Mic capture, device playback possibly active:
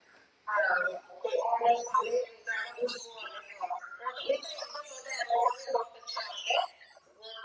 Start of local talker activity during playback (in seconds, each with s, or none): none